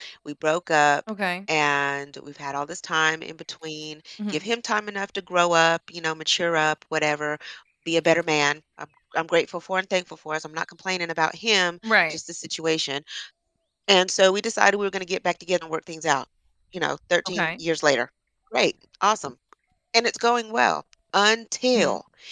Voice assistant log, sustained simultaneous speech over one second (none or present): none